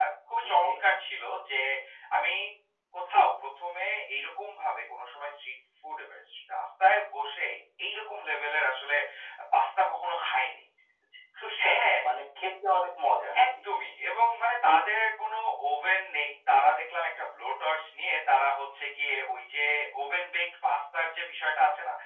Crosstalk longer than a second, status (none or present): none